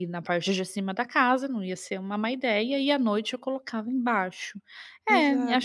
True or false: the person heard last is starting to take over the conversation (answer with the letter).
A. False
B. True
B